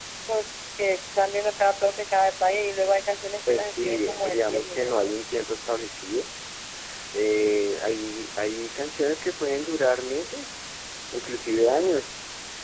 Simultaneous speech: Yes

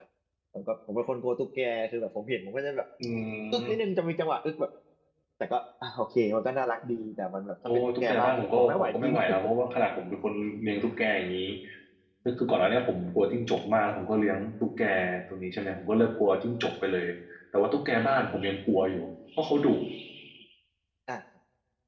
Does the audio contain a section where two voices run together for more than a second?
Yes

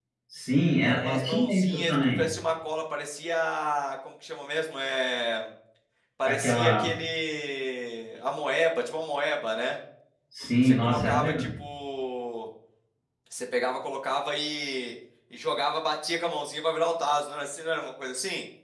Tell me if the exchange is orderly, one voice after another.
No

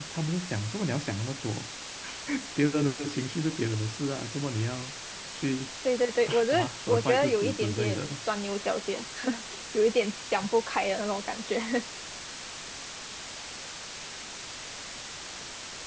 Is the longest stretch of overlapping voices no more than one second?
No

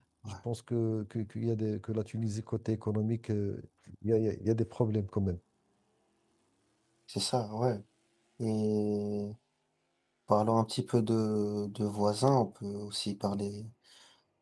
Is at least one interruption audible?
No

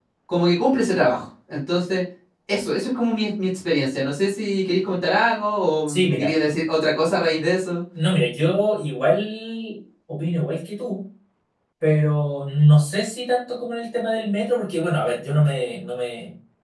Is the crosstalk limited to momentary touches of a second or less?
Yes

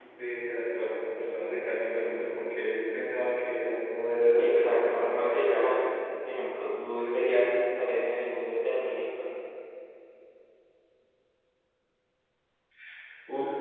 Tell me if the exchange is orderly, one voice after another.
No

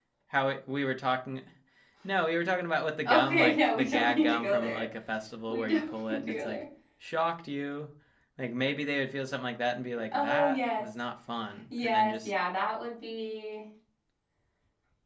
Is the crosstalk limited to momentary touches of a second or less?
No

